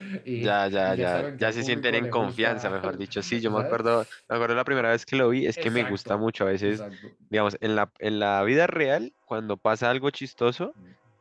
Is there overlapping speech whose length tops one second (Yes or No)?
Yes